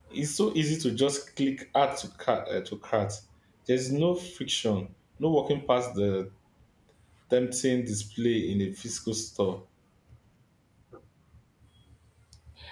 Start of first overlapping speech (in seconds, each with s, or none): none